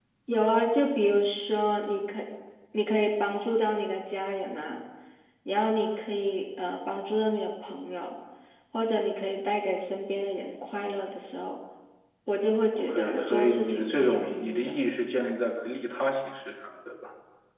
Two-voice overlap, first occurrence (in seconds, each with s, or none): 12.8 s